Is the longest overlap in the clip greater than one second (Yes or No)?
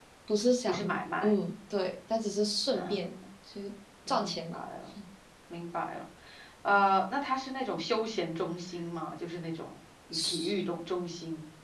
No